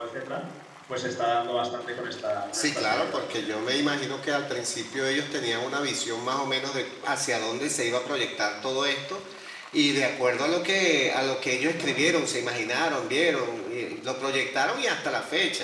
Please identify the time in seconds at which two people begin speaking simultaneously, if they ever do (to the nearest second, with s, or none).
3 s